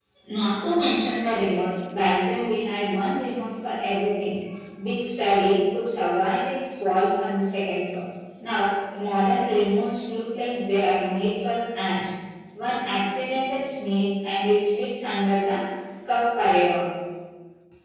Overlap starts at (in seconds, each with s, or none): none